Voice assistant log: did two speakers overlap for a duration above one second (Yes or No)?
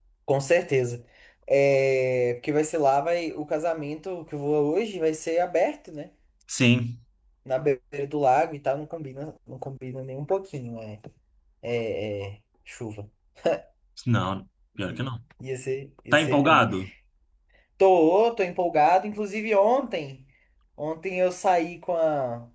No